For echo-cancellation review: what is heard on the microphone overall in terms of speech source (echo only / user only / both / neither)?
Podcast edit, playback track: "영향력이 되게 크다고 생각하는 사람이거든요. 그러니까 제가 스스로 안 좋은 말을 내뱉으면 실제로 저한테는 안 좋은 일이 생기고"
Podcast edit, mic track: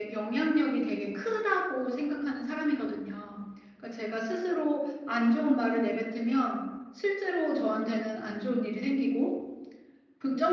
echo only